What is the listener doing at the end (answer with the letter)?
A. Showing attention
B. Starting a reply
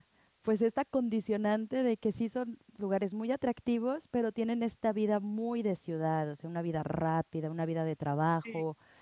A